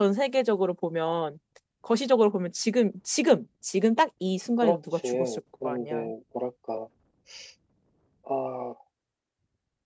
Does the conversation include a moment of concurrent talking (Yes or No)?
Yes